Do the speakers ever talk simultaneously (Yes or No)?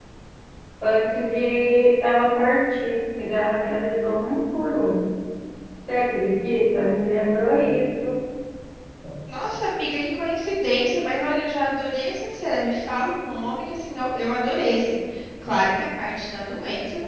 No